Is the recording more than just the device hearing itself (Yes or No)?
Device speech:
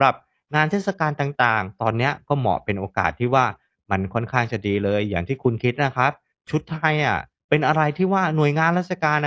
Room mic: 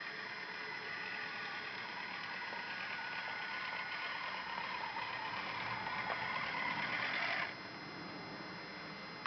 No